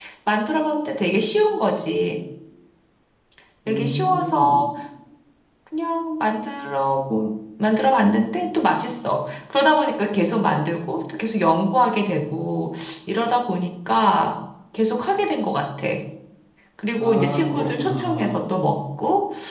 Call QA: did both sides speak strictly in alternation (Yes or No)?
No